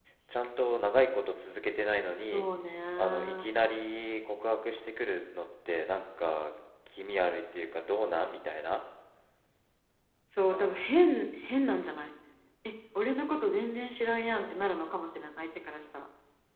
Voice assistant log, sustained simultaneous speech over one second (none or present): present